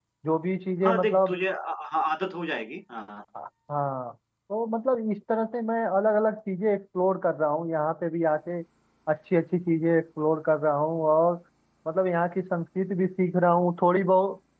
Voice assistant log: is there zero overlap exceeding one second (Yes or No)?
Yes